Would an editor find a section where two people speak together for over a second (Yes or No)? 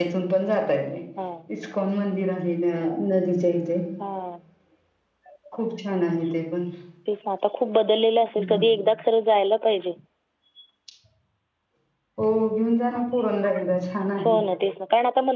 No